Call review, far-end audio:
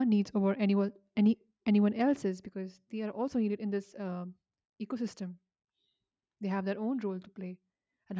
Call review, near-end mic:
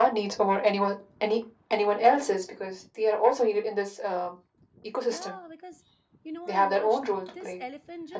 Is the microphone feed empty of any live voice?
No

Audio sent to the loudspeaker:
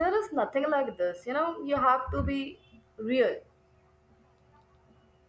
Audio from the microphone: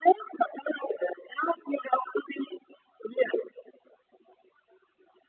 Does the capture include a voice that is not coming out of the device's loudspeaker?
No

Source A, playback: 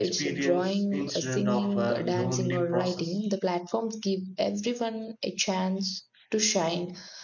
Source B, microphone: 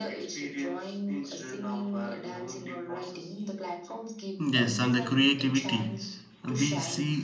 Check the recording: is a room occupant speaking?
Yes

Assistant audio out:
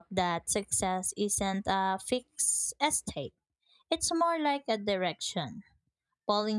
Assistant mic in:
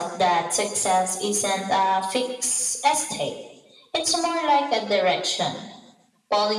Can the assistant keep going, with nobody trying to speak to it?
Yes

